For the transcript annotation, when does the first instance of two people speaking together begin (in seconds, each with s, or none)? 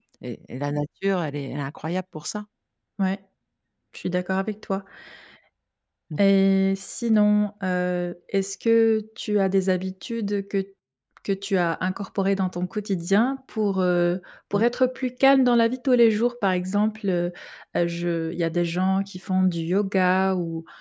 none